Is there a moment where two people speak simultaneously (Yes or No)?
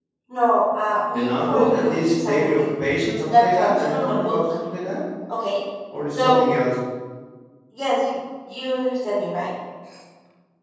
Yes